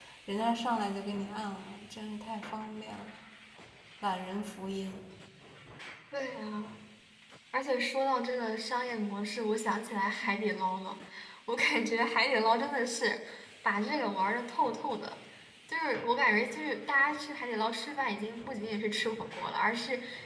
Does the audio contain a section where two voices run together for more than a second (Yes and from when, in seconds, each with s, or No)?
No